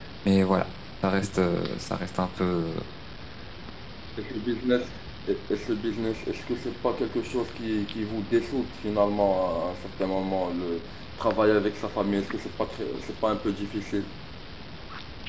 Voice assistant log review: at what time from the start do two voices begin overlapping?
none

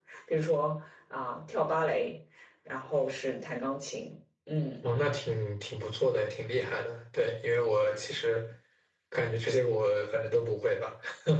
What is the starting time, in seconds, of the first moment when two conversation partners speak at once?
none

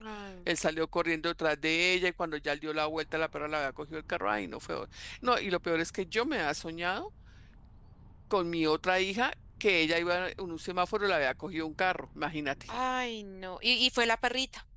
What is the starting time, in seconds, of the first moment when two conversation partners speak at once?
none

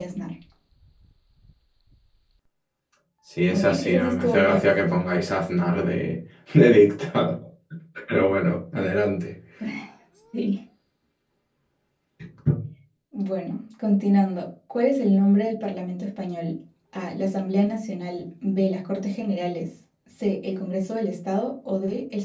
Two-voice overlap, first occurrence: 3.5 s

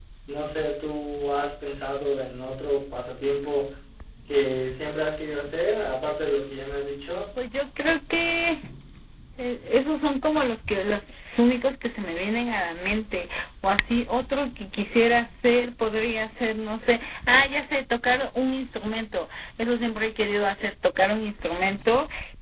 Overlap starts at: none

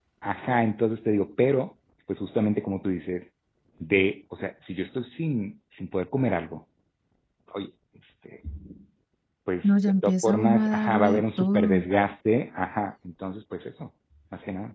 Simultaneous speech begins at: 9.6 s

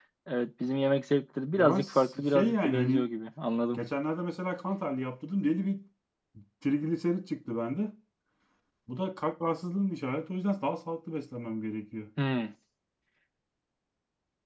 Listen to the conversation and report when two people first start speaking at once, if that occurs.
1.6 s

